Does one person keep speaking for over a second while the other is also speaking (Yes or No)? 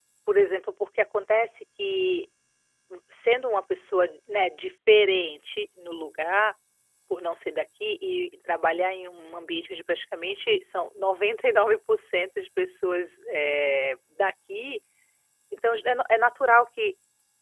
No